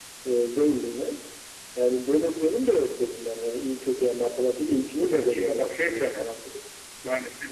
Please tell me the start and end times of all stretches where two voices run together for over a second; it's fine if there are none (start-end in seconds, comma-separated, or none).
5.0-6.3